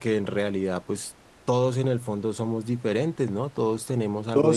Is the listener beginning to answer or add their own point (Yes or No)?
Yes